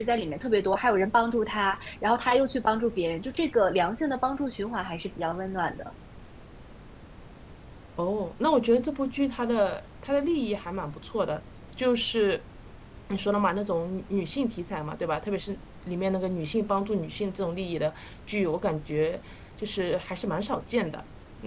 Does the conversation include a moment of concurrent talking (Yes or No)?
No